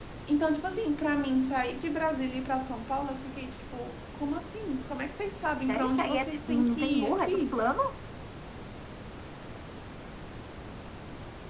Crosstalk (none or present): present